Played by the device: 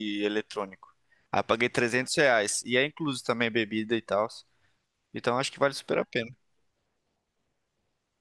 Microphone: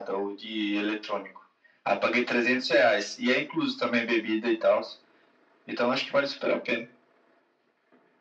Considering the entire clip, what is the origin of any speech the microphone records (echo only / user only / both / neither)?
echo only